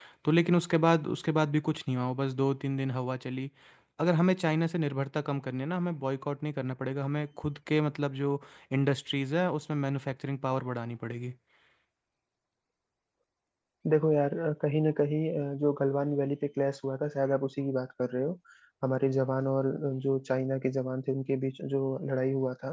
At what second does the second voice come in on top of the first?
none

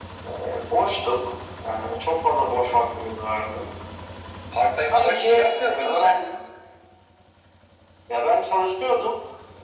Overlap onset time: 4.9 s

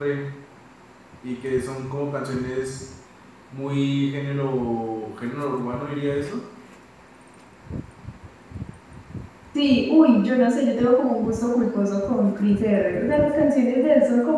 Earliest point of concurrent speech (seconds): none

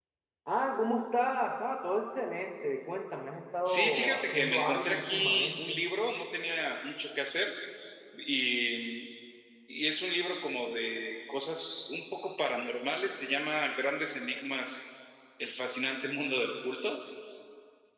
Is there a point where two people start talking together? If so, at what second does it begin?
3.6 s

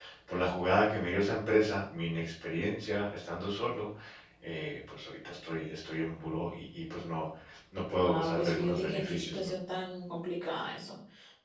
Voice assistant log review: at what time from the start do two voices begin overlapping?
8.0 s

